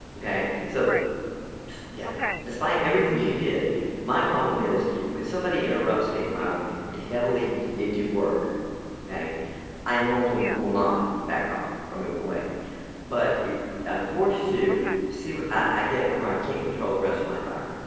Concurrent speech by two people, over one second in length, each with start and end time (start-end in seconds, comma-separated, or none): none